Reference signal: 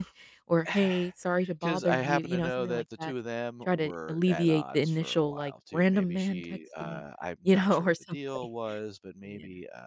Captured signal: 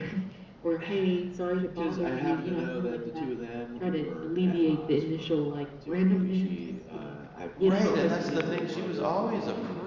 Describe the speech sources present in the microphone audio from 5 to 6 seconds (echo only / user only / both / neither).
echo only